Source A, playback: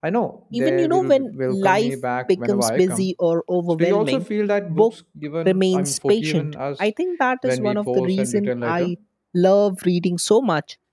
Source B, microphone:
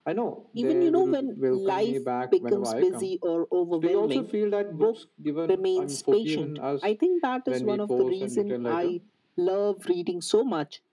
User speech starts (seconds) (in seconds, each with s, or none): none